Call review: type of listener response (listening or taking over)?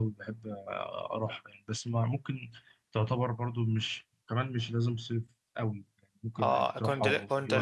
taking over